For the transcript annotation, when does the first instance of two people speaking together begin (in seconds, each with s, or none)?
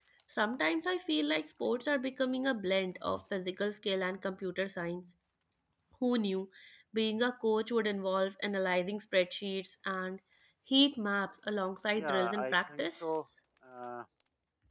11.9 s